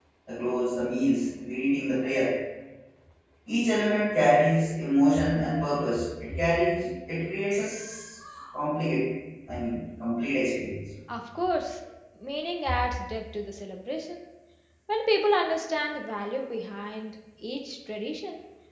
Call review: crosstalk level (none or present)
none